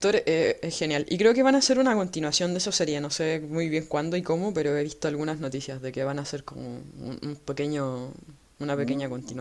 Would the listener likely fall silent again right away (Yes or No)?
No